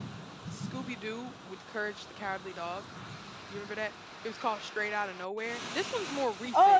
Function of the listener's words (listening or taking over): taking over